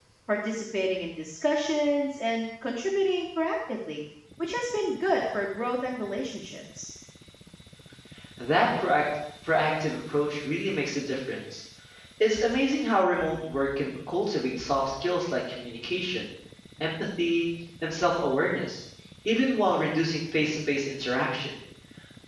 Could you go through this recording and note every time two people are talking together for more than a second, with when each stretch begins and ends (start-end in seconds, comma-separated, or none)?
none